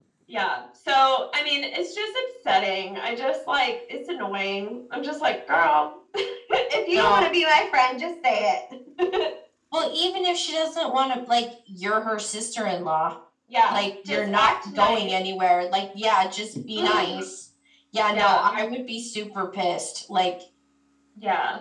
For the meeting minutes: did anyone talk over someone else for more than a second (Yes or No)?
Yes